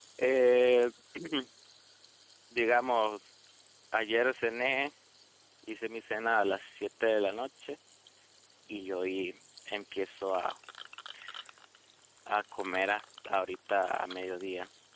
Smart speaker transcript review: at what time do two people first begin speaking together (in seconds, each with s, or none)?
none